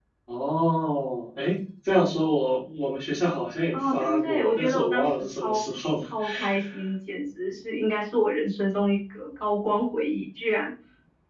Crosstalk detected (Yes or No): Yes